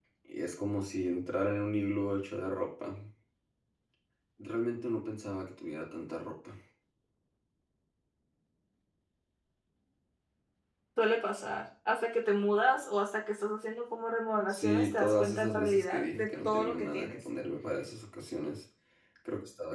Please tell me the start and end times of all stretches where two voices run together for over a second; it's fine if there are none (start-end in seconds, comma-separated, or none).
14.5-17.3